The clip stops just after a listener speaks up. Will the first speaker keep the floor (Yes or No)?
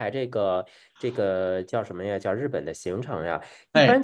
Yes